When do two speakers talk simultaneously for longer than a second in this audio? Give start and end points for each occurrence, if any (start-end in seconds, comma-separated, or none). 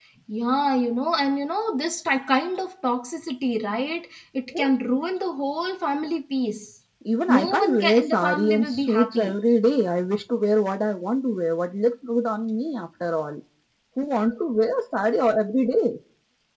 7.3-9.4